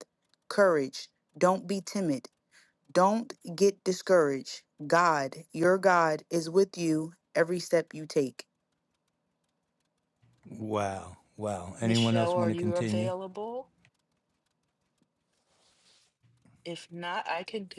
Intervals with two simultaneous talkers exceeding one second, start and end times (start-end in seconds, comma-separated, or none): 11.8-13.1